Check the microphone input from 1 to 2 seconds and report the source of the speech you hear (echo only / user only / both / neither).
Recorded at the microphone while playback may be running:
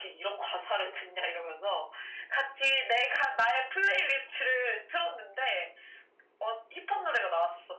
echo only